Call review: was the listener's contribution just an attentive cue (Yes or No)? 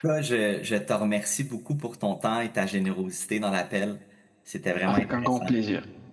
No